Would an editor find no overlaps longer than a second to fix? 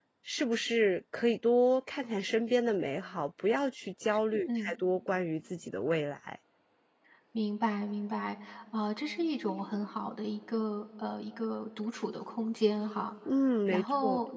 Yes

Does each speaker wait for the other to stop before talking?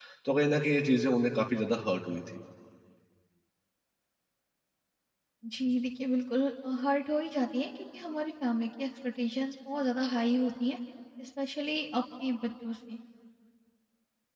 Yes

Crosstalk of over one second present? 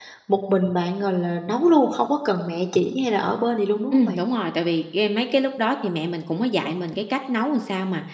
No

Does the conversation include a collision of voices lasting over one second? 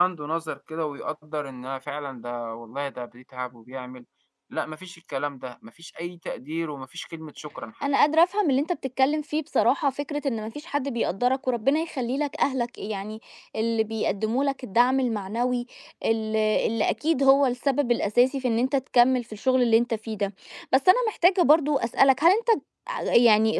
No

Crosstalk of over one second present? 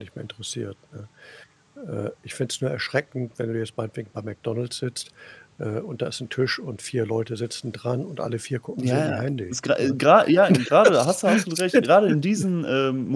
Yes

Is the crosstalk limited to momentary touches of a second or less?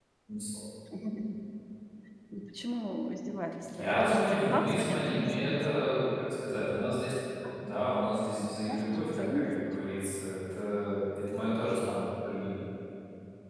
No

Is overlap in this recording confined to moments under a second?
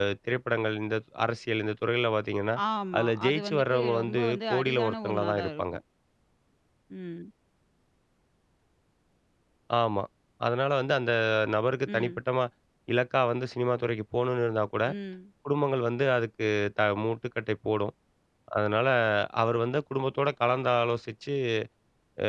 No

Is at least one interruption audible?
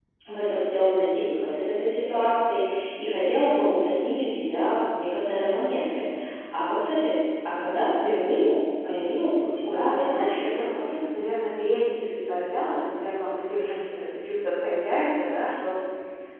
Yes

